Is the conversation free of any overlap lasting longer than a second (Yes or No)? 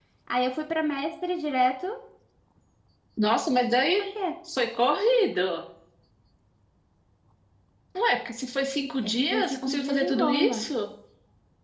No